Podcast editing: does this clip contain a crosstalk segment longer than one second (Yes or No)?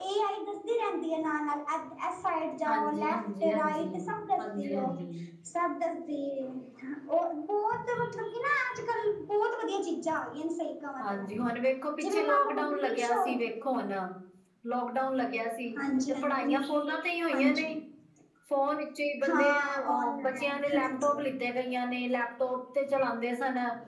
Yes